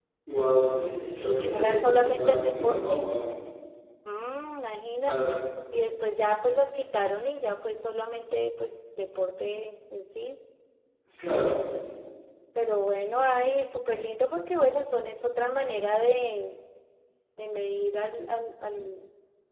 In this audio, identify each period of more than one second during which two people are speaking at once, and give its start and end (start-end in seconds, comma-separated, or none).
1.1-3.0